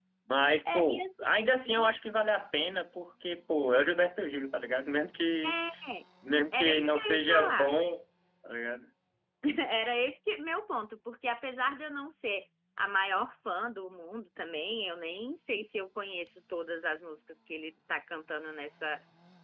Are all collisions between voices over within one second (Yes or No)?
No